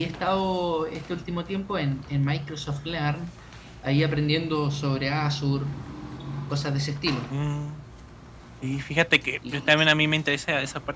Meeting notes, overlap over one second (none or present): none